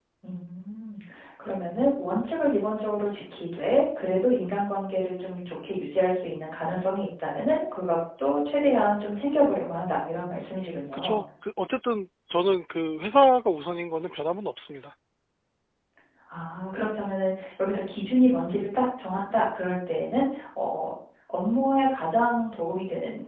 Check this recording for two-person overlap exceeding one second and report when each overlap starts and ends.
none

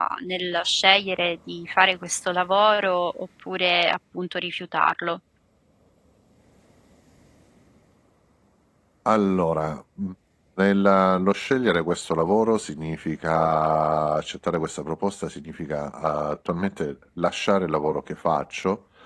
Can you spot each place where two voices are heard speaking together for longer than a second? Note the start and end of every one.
none

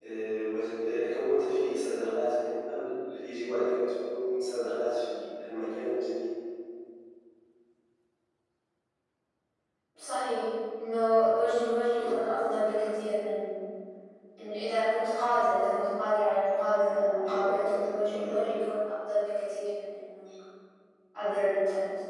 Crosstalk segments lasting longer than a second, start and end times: 17.3-18.5

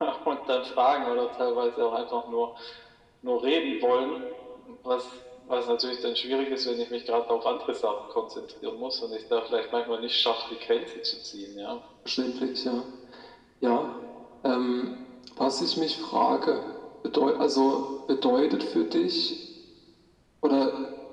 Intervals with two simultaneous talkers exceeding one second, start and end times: none

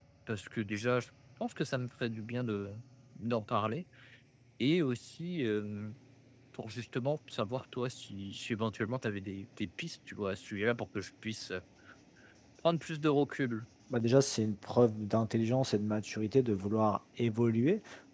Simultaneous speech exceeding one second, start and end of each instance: none

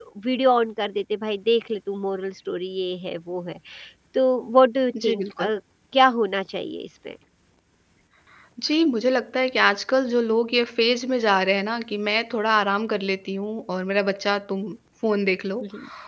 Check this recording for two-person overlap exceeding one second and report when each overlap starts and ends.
none

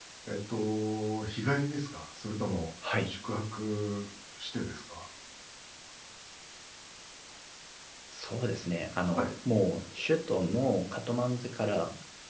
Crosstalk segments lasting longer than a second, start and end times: none

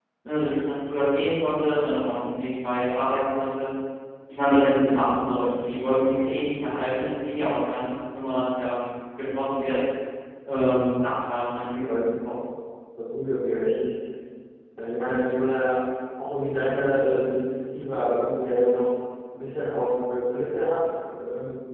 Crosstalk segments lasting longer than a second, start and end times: none

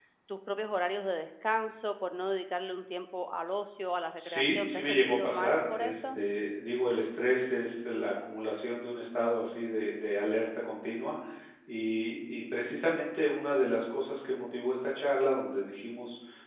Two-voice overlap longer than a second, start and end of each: 4.2-6.2

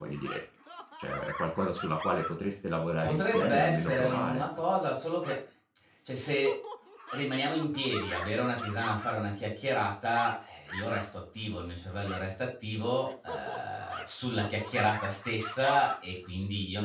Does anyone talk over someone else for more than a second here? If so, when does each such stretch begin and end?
3.0-4.4

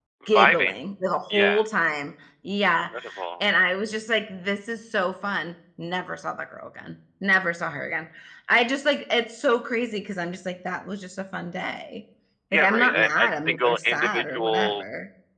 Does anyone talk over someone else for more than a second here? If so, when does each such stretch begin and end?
12.5-14.8

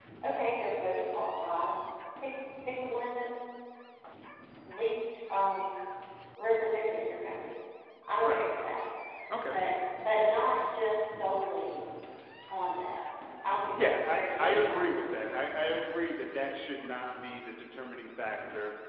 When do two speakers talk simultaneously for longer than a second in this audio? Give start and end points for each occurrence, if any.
13.8-15.0

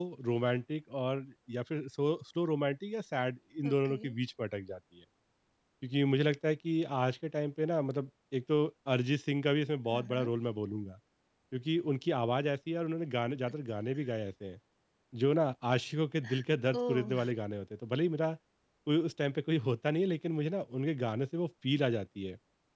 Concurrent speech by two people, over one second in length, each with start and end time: none

